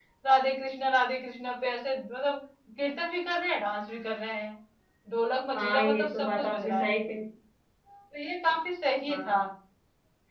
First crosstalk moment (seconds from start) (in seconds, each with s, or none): 5.6 s